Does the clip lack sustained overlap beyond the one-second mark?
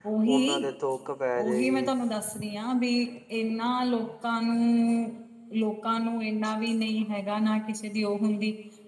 Yes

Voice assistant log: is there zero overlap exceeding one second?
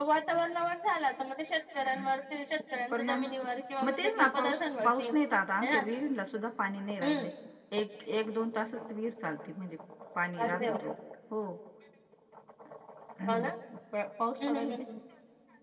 No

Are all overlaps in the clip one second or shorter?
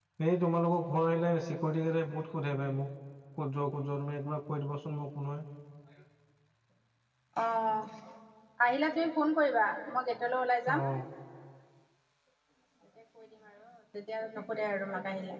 Yes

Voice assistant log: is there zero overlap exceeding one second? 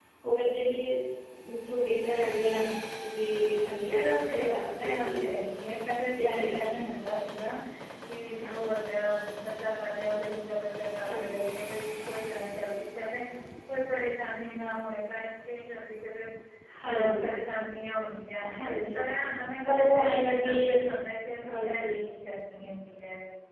No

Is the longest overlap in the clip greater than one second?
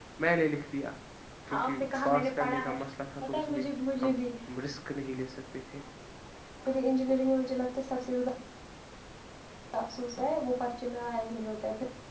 Yes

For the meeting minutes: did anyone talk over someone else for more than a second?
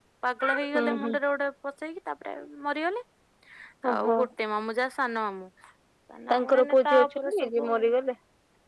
Yes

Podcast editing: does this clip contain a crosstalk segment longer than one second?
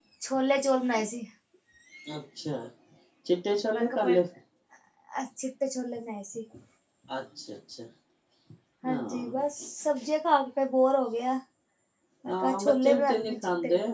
Yes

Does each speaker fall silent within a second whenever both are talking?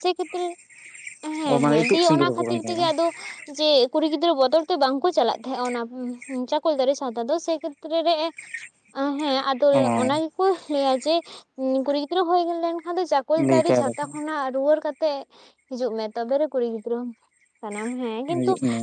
No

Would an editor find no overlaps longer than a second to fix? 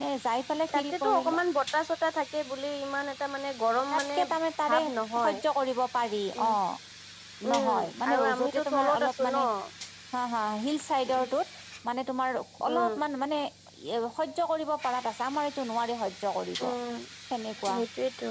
No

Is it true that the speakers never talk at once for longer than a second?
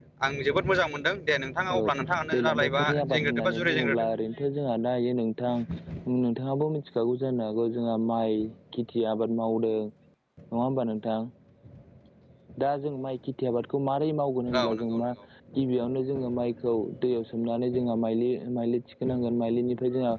No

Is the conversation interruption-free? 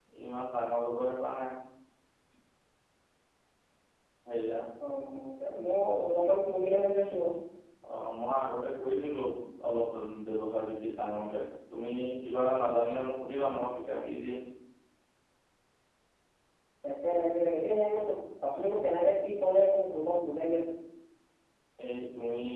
Yes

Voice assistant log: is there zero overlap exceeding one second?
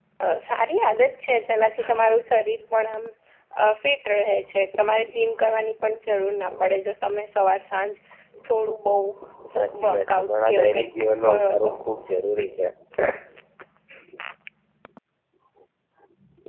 No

